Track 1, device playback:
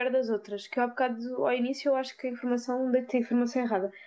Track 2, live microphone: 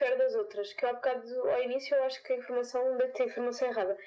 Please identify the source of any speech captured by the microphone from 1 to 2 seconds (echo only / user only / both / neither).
echo only